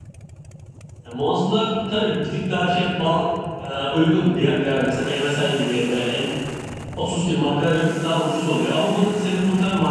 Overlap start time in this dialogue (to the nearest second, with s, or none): none